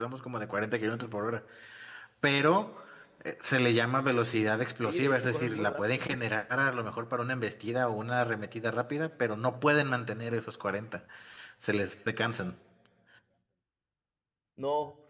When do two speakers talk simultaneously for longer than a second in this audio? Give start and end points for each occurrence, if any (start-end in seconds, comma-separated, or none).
4.8-6.0